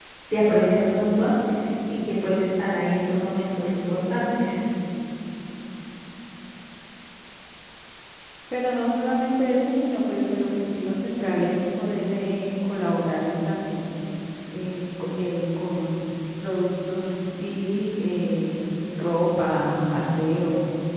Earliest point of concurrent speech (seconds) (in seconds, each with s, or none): none